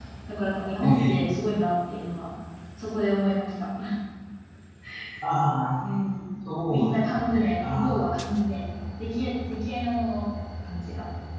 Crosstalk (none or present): present